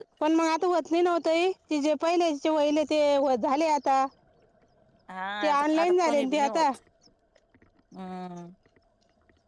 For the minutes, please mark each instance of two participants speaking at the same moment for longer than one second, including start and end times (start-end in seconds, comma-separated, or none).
5.4-6.6